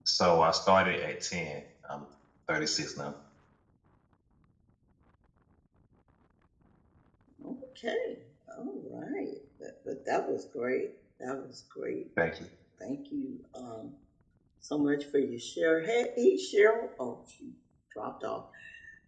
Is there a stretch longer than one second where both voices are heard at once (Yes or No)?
No